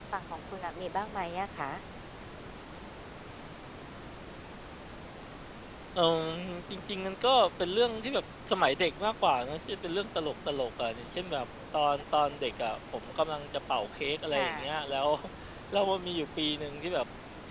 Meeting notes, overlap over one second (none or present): none